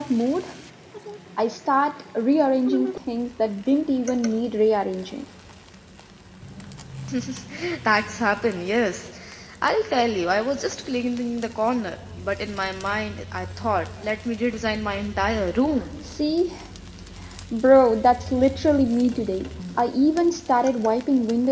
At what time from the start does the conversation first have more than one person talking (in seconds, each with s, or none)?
none